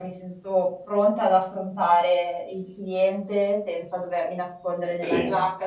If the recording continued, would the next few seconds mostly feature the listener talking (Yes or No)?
No